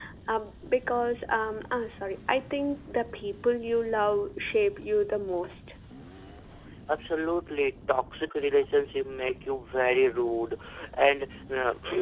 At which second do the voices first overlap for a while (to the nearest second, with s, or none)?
none